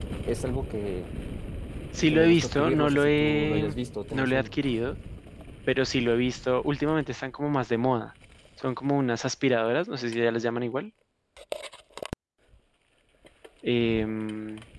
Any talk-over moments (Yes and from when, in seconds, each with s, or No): Yes, from 2.1 s